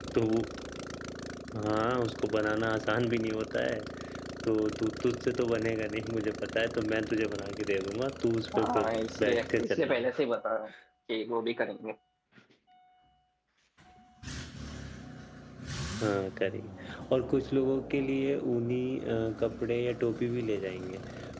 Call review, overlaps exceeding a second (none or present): present